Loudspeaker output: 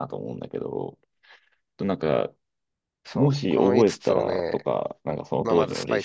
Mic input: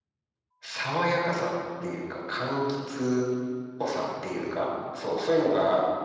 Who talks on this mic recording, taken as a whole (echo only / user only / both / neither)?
user only